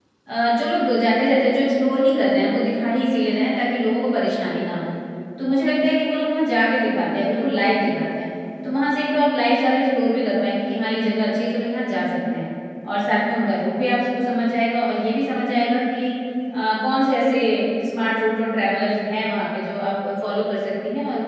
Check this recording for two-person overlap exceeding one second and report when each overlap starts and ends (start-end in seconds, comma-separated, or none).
none